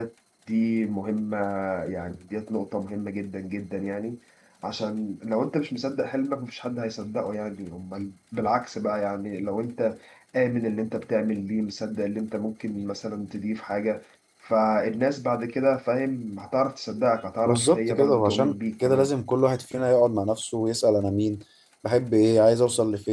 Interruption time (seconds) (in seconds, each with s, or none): 17.4 s